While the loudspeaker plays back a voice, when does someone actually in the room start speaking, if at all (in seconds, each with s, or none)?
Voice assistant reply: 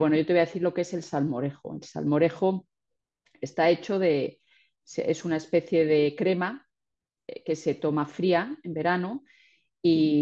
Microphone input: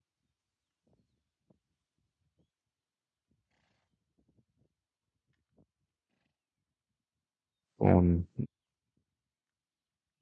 7.8 s